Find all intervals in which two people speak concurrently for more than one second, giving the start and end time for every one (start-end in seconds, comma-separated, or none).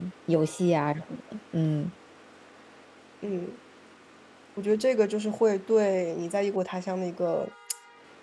none